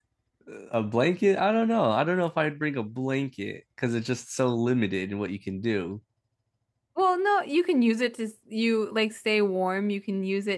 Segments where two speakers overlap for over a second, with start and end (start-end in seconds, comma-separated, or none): none